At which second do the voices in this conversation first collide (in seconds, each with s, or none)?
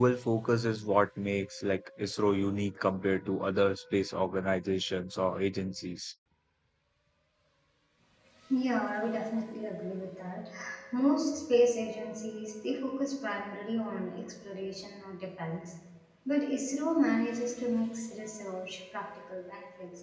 none